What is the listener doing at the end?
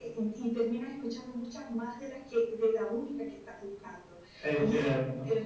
listening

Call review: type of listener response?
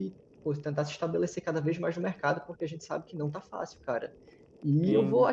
listening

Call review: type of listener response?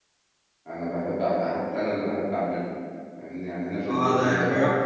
taking over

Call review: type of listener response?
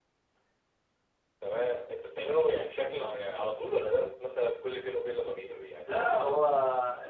taking over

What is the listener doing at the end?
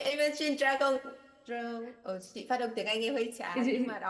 taking over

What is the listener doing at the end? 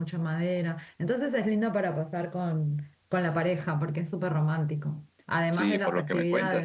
taking over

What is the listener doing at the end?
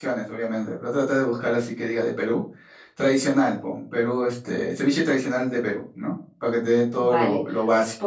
taking over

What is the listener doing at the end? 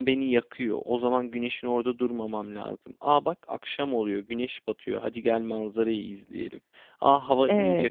listening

